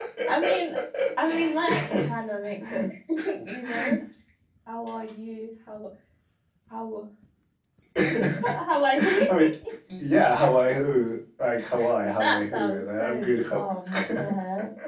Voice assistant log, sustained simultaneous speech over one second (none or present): present